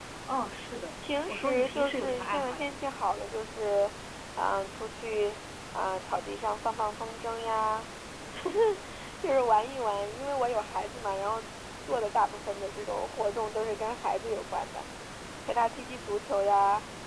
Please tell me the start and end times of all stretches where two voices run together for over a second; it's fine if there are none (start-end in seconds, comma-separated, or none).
1.3-2.7